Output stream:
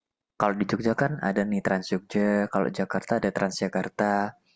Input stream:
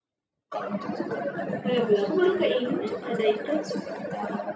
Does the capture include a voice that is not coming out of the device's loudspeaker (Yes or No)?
Yes